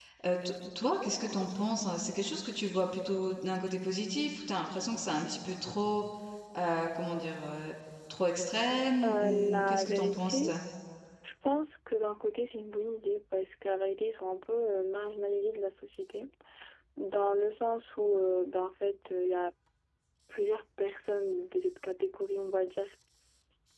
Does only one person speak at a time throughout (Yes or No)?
No